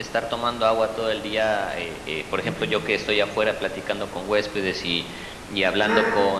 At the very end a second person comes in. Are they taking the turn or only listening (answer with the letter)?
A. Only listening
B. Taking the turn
A